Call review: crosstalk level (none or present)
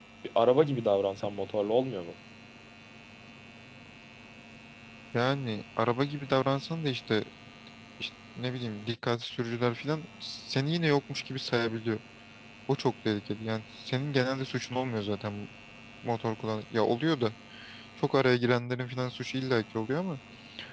none